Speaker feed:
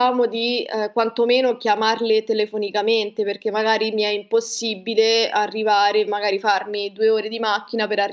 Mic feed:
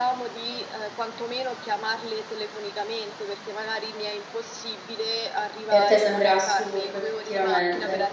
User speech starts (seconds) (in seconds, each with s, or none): 5.6 s